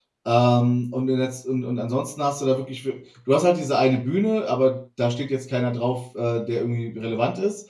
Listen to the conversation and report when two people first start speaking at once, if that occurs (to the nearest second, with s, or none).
none